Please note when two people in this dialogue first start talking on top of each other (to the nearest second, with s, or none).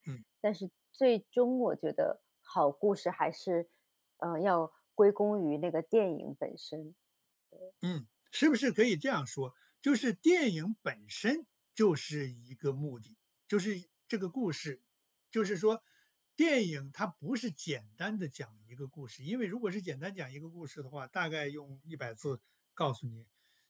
none